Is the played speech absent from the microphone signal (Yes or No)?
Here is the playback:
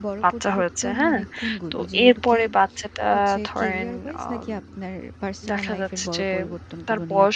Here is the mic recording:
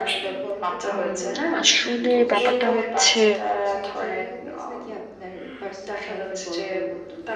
No